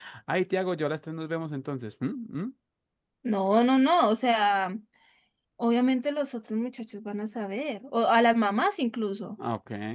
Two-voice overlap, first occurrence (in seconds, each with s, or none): none